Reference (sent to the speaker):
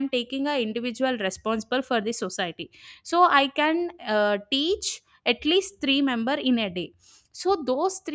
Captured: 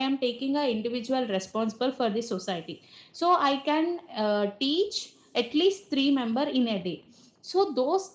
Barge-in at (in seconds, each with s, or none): none